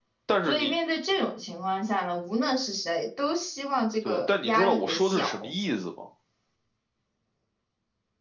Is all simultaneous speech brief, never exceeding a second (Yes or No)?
No